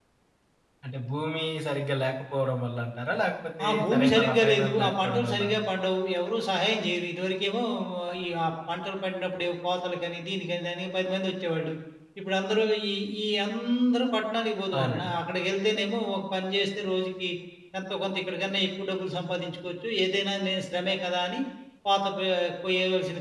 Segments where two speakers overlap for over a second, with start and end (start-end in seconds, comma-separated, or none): 3.6-5.4